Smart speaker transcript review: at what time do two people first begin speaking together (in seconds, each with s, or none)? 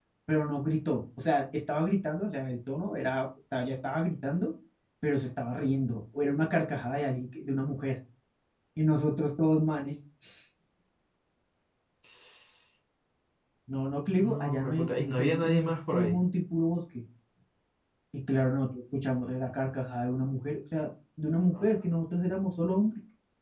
14.0 s